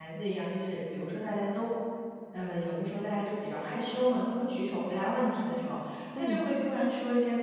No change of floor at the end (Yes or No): Yes